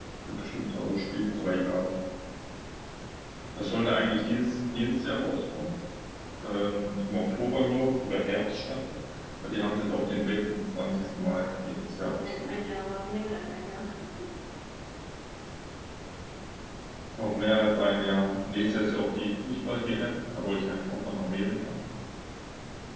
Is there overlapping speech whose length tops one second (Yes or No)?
No